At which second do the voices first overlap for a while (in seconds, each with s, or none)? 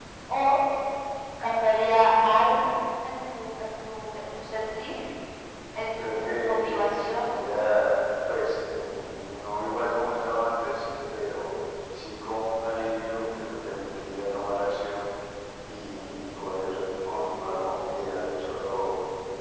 6.0 s